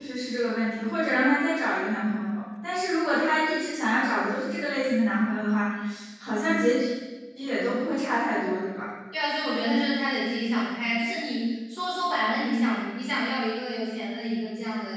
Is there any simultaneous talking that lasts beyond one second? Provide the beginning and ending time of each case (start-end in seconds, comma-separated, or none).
none